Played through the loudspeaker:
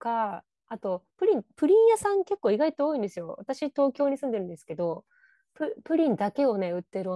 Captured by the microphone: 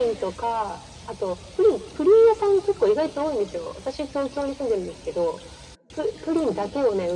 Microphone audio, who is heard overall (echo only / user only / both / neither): echo only